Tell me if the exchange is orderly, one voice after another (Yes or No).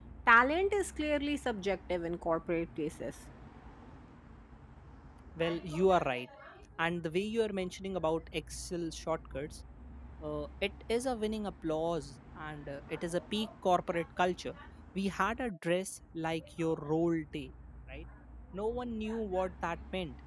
Yes